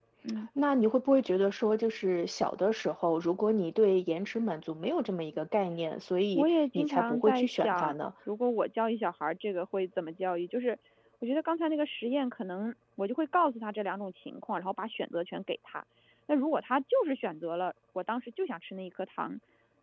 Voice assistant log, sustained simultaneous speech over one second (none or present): present